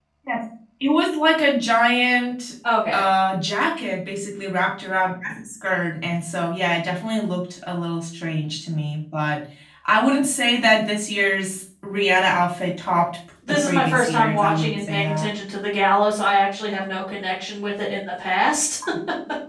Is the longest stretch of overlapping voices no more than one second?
No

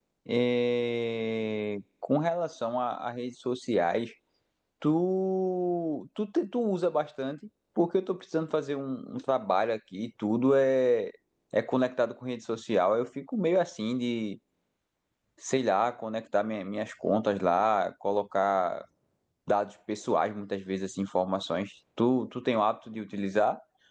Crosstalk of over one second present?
No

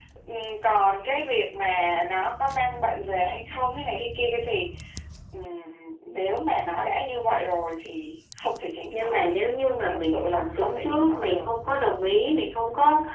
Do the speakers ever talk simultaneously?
Yes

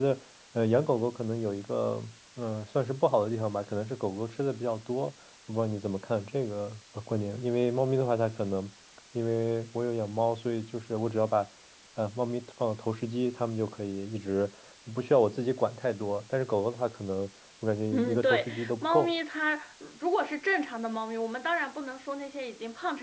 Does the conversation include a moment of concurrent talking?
Yes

